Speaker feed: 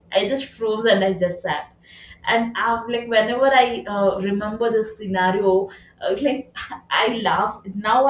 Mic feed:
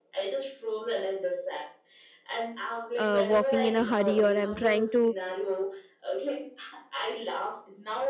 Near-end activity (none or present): present